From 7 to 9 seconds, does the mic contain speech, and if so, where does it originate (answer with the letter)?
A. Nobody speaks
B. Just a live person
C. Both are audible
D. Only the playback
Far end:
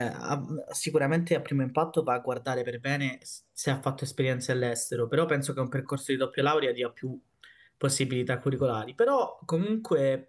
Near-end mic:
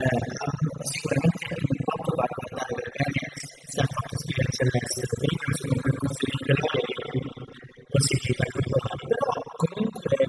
D